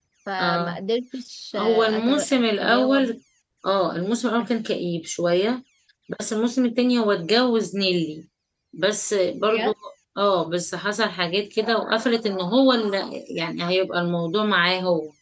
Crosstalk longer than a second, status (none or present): present